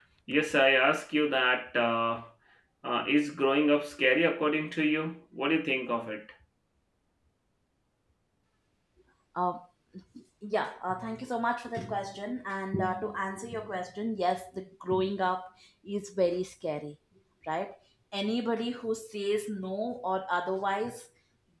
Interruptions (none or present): none